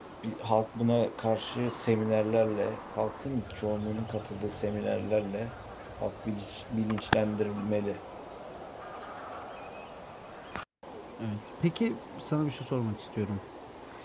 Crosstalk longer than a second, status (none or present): none